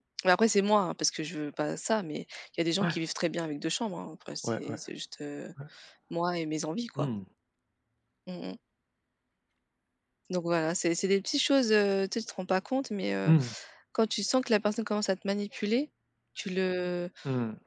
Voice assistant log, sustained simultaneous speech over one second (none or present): none